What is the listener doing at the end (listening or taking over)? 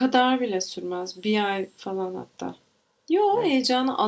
listening